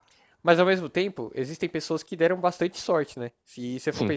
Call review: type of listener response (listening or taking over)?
listening